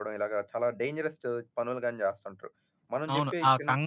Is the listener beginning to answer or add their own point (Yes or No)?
Yes